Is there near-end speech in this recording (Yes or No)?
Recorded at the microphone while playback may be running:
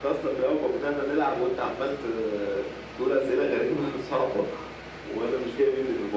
No